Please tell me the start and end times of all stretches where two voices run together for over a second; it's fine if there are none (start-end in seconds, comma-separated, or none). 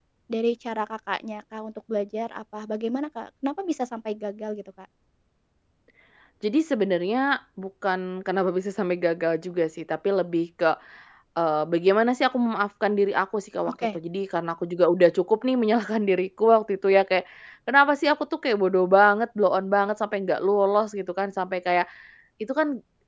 none